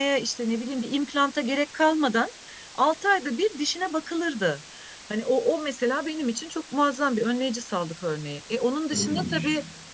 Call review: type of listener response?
listening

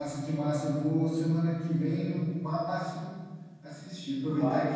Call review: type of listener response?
listening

